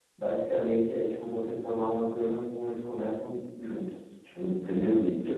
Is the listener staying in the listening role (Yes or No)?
No